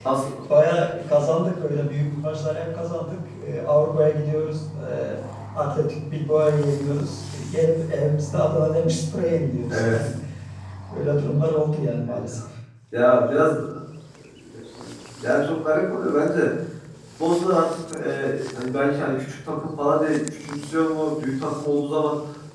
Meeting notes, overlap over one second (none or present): none